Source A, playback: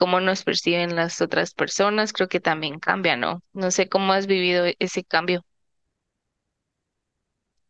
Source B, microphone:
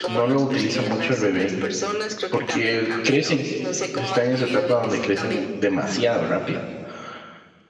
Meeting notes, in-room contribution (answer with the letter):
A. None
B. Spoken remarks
B